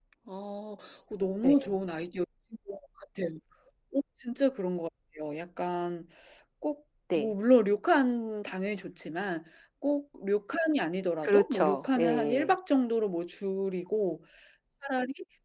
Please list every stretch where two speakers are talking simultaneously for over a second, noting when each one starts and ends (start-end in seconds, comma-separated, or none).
11.2-12.5